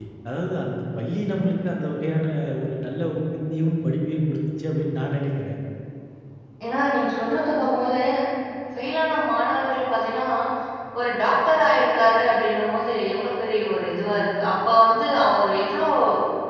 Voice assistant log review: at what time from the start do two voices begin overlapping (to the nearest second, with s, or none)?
none